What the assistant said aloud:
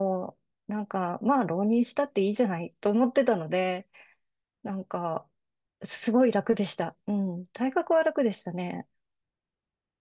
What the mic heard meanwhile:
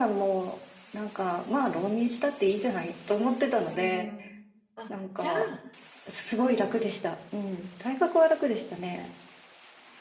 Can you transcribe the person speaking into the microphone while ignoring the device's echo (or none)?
うん。あ、じゃあ、うん。